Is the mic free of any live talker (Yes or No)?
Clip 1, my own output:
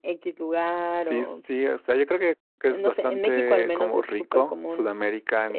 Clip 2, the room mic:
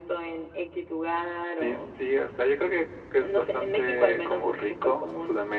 Yes